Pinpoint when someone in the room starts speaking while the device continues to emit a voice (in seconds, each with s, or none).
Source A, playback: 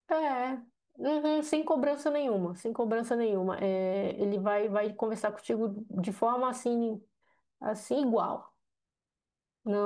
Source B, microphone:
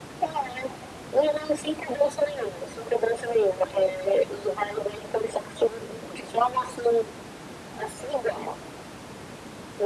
none